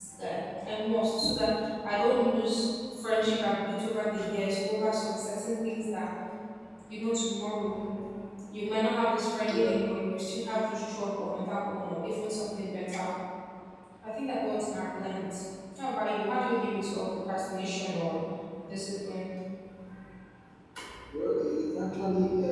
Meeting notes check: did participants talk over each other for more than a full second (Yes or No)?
No